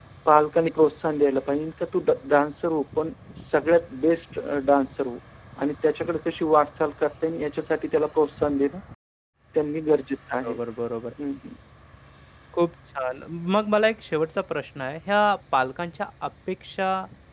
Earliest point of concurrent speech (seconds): none

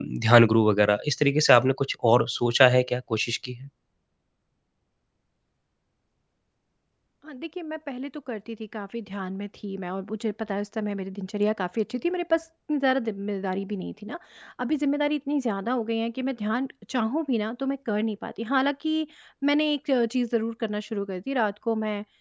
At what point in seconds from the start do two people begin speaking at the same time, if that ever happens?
none

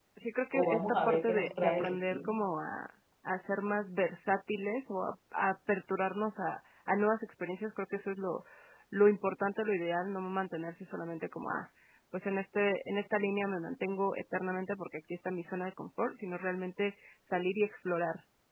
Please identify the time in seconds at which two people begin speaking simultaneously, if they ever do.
0.5 s

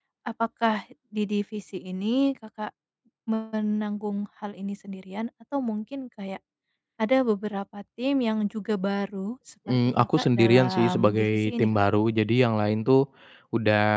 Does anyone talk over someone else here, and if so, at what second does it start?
9.7 s

